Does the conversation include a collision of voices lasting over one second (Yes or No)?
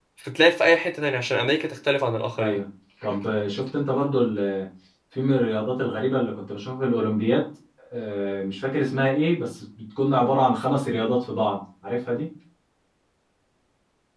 No